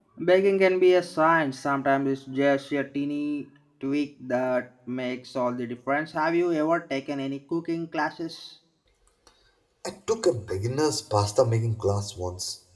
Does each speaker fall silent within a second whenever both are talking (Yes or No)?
Yes